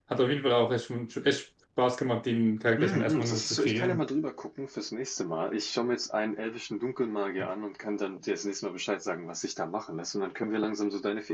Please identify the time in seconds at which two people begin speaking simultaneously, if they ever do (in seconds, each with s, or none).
2.8 s